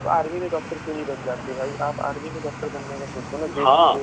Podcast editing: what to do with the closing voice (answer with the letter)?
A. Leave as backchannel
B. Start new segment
B